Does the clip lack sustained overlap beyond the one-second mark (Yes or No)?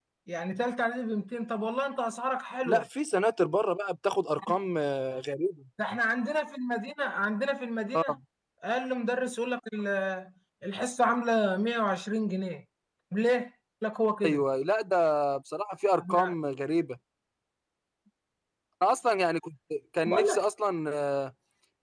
Yes